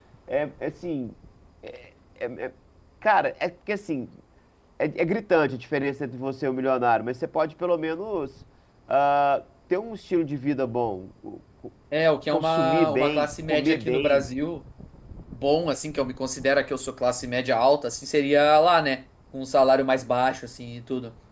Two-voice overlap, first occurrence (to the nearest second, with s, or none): 12 s